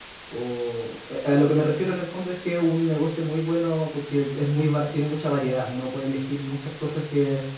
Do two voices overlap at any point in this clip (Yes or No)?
No